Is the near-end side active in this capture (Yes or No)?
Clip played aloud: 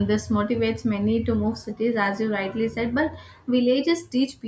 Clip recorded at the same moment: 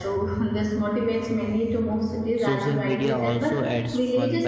Yes